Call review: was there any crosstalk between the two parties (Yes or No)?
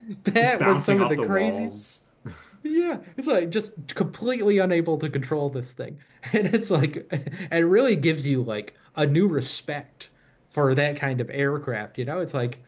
Yes